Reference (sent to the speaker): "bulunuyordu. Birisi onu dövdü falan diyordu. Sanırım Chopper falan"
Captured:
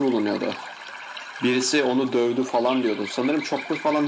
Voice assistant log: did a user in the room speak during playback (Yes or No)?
No